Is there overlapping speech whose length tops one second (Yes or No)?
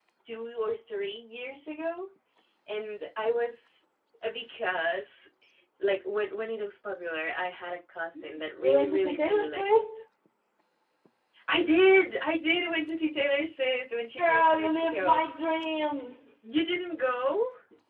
Yes